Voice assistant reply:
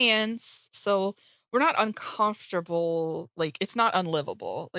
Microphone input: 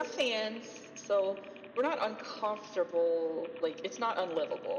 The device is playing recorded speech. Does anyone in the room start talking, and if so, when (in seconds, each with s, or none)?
none